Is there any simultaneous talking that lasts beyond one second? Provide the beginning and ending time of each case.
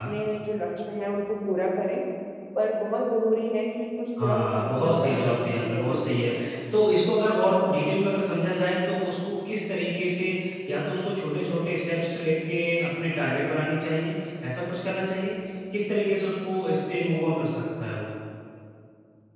4.2-6.3

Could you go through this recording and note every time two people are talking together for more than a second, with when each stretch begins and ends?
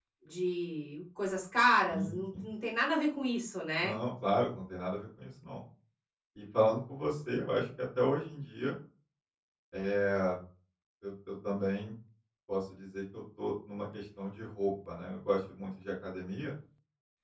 none

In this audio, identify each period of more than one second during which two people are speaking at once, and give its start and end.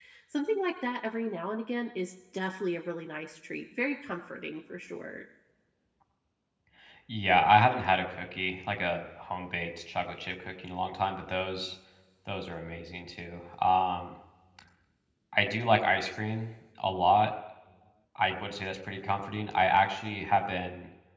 none

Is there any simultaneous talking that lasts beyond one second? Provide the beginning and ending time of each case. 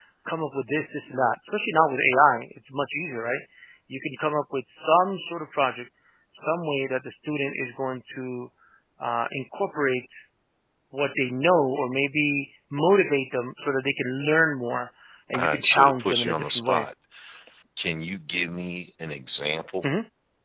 15.4-16.9

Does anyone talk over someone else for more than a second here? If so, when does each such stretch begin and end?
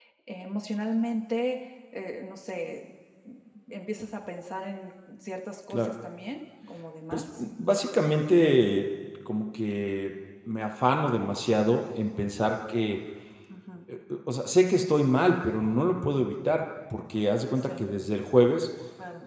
none

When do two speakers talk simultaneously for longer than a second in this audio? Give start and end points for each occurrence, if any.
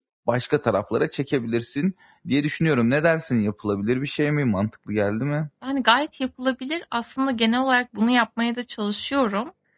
none

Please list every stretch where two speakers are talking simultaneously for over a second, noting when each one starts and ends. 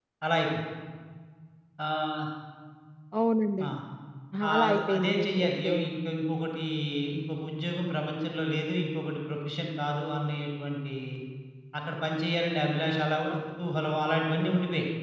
4.5-5.7

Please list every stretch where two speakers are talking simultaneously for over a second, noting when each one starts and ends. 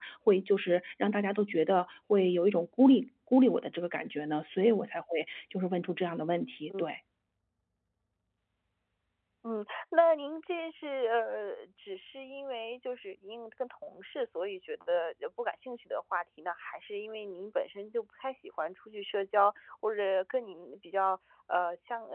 none

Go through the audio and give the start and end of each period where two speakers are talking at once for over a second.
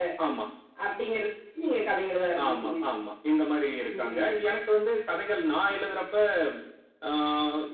none

